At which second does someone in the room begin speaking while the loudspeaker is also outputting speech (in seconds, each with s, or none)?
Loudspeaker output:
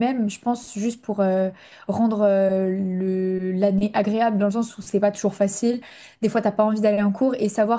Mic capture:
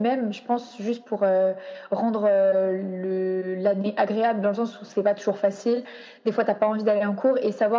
none